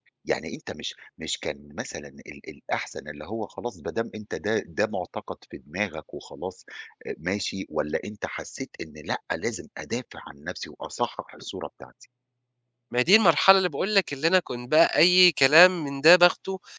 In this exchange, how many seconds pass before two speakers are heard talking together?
none

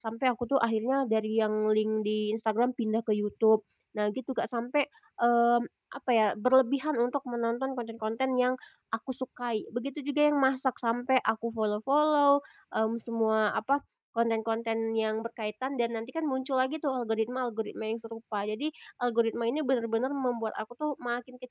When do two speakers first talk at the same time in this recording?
none

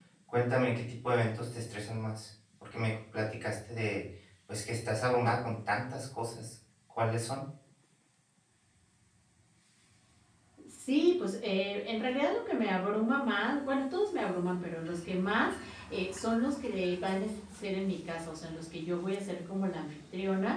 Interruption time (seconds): none

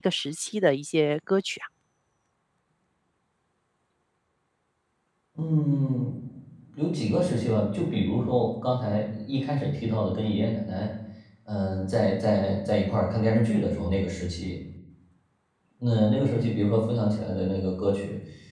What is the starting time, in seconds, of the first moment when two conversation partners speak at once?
none

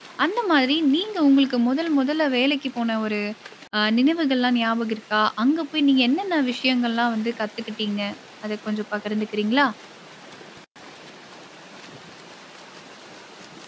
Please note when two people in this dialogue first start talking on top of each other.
none

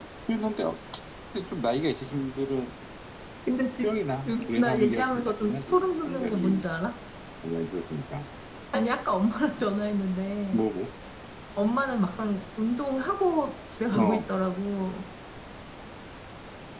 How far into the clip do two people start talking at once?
4.6 s

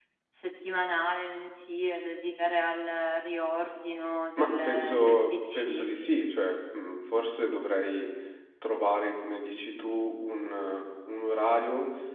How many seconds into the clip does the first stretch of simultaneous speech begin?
4.4 s

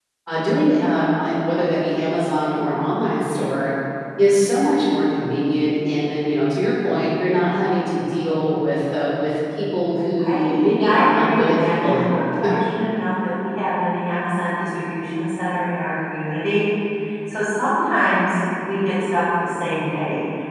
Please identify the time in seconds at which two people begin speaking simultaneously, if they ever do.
10.2 s

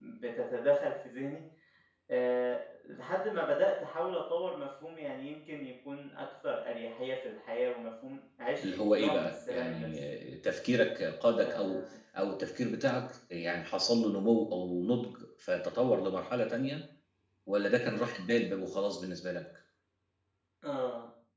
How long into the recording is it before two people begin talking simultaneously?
8.6 s

